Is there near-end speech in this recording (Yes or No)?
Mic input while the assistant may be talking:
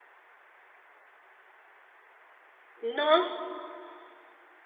Yes